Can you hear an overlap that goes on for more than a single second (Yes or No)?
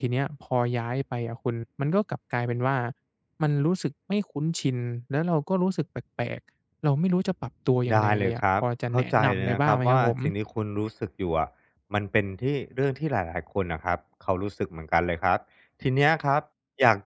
Yes